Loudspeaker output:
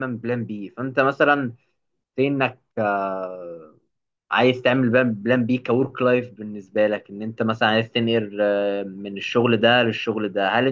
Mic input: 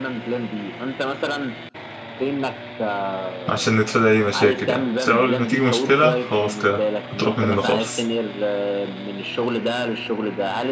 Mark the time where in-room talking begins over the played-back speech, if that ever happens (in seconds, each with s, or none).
3.5 s